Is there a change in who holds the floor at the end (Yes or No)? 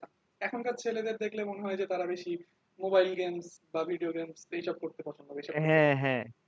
Yes